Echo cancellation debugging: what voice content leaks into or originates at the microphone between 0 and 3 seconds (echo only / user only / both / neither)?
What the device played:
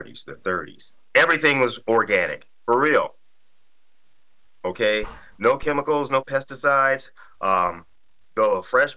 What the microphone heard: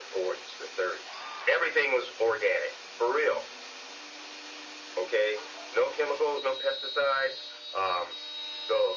echo only